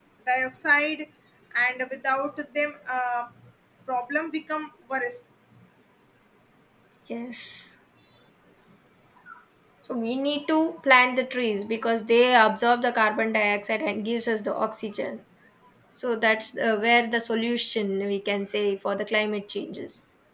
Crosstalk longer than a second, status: none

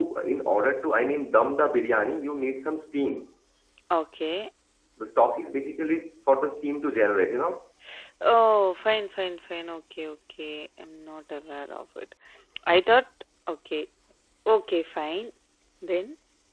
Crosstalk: none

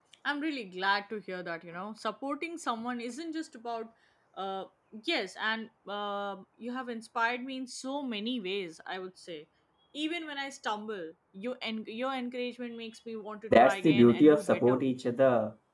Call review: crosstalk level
present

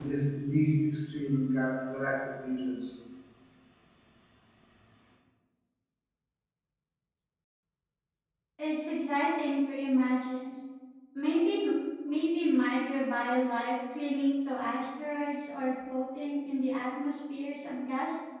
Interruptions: none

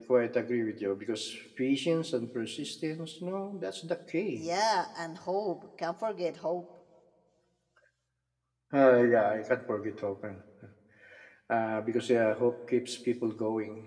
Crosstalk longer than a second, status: none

